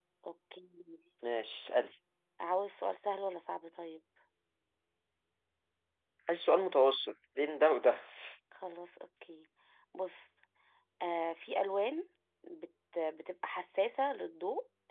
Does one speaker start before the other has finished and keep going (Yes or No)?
No